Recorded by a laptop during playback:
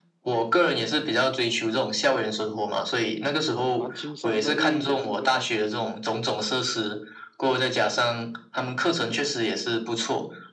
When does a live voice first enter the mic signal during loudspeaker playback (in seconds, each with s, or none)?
3.7 s